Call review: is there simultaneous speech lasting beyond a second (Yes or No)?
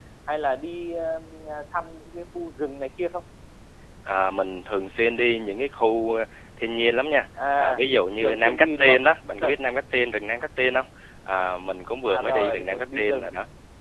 Yes